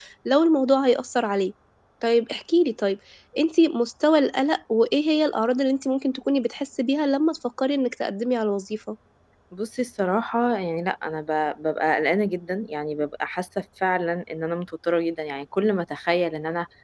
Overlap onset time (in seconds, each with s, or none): none